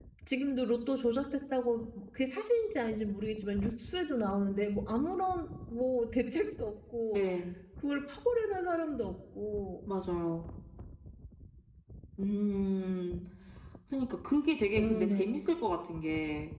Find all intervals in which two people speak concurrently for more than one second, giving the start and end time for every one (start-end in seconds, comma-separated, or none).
none